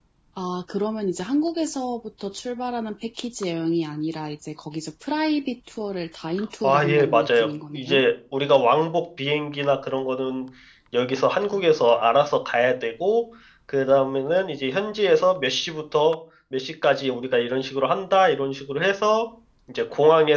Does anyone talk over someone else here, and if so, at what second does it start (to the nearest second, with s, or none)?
7 s